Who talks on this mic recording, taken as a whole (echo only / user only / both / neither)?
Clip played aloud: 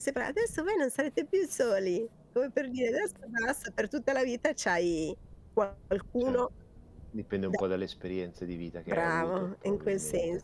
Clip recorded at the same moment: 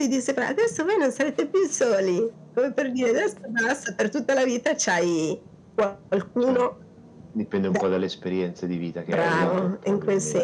both